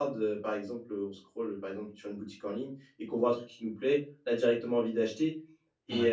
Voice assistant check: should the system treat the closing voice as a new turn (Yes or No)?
No